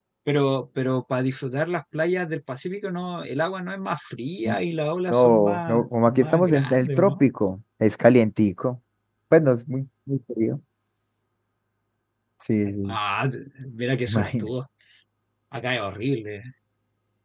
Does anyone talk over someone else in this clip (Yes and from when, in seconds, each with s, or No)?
Yes, from 5.1 s